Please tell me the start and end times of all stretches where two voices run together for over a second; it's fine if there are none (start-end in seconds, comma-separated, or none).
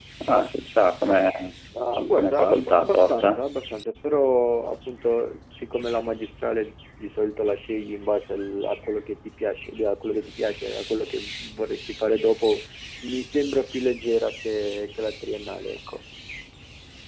2.2-3.4